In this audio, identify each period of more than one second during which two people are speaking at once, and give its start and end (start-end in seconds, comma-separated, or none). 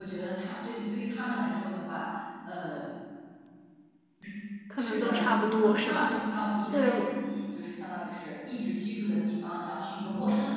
4.8-6.2